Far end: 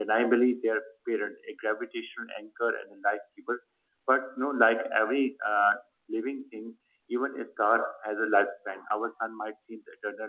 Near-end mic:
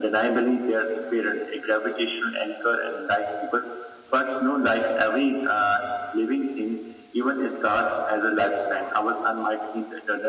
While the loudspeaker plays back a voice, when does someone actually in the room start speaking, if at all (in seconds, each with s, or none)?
none